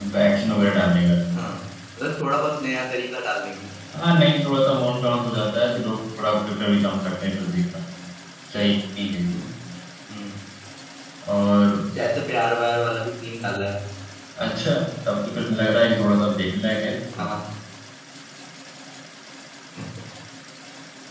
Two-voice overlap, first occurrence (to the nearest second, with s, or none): none